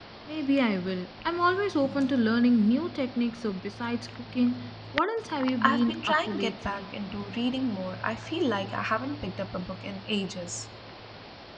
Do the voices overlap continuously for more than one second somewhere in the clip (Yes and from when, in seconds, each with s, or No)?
Yes, from 5.6 s